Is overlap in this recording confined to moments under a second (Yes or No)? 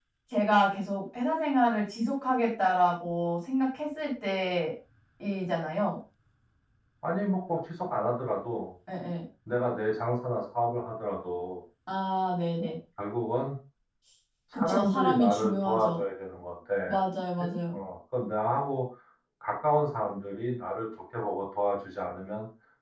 No